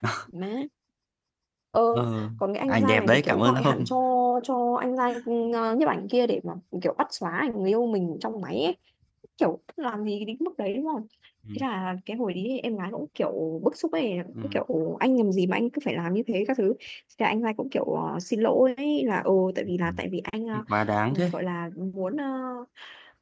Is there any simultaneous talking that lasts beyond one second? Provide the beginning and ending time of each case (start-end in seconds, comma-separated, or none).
2.7-3.9